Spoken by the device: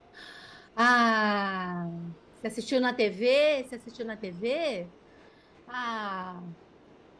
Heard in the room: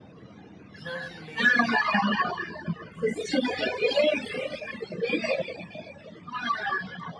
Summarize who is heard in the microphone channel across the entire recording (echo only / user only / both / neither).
both